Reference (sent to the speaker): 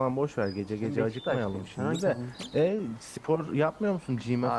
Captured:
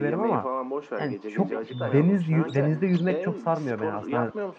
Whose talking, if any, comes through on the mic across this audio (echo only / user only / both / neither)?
both